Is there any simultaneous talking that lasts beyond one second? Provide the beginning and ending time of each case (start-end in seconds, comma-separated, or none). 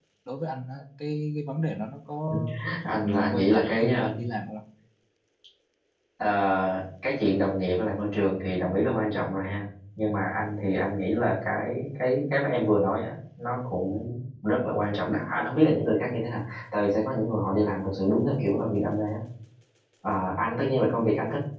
3.0-4.2